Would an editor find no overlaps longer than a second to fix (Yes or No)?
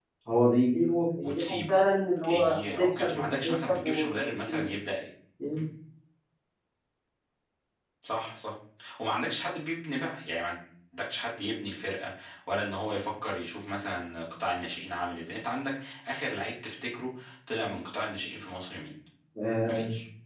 No